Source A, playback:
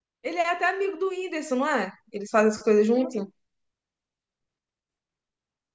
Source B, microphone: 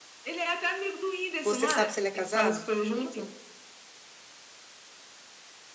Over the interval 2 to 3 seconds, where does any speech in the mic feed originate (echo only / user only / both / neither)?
both